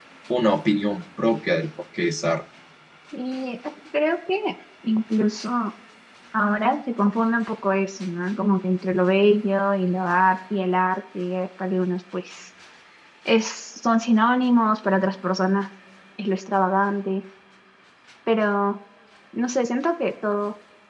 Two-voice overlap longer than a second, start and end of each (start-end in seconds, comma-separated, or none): none